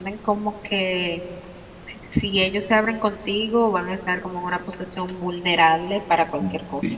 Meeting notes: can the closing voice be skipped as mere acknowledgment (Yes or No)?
No